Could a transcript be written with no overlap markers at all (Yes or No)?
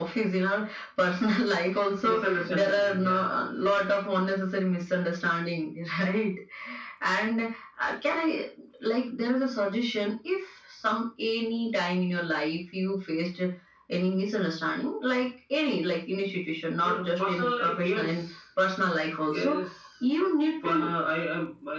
No